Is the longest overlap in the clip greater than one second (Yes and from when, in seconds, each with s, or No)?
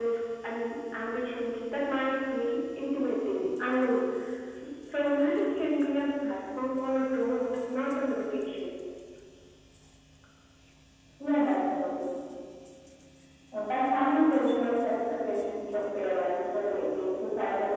No